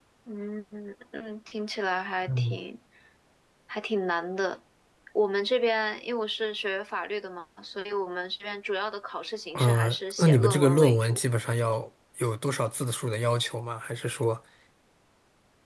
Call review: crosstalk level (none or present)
present